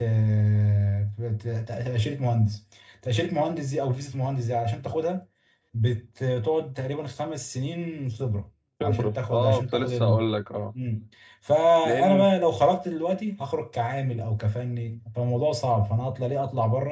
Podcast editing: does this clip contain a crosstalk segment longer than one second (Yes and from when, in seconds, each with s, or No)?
Yes, from 8.8 s